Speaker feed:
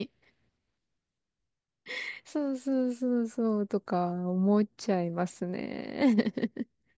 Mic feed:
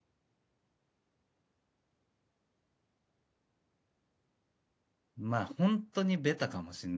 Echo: none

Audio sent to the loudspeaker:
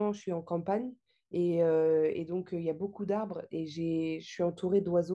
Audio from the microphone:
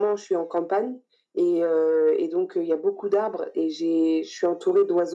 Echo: present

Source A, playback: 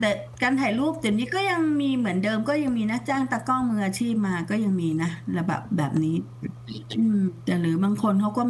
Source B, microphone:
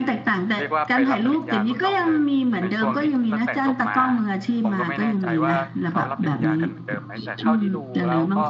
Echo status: present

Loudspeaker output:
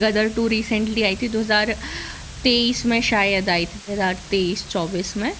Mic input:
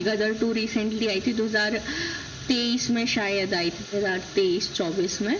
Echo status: present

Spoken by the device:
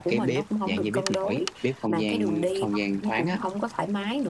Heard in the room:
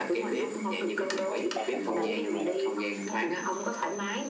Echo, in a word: present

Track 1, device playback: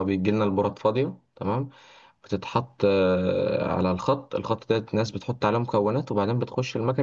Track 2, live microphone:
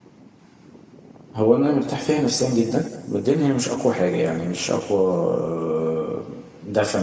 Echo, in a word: none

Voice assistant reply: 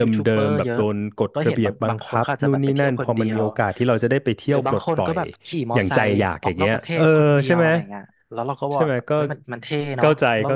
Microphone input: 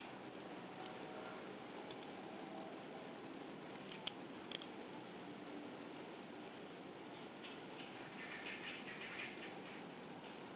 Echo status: none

